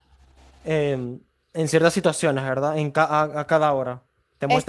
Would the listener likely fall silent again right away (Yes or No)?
Yes